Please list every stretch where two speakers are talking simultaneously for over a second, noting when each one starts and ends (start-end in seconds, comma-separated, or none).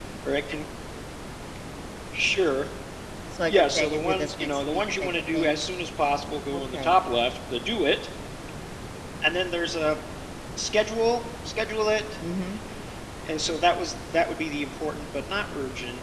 3.5-5.6